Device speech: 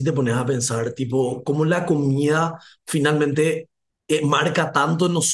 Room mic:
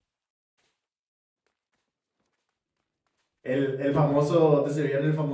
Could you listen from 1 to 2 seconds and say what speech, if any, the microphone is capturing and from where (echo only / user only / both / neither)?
neither